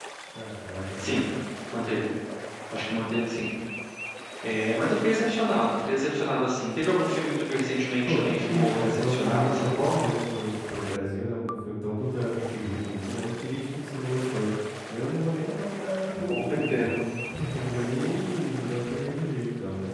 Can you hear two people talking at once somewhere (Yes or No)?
Yes